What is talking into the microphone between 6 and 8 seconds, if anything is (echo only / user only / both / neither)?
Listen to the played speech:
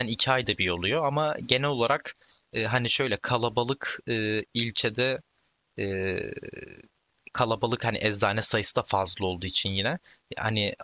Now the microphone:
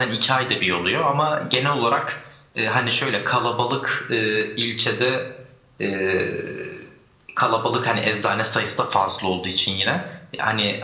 echo only